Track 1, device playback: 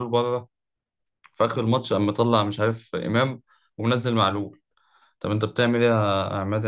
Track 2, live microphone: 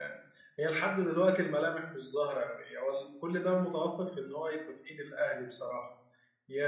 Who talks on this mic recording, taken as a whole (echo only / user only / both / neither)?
user only